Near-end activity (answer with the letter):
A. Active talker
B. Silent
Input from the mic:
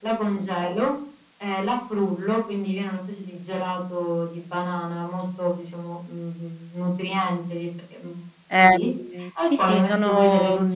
A